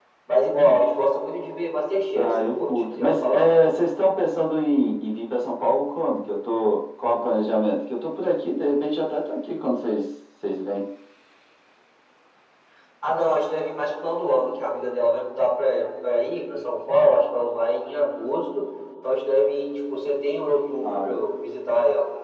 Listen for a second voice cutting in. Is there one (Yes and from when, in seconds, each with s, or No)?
Yes, from 2.2 s